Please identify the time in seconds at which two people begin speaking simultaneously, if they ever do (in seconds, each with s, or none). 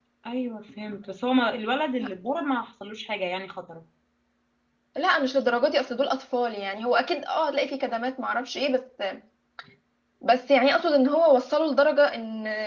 none